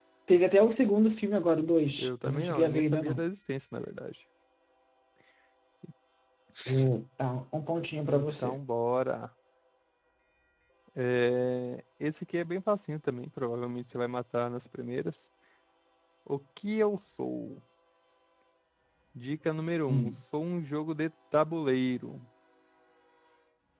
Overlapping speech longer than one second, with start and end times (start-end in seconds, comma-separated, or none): 2.0-3.2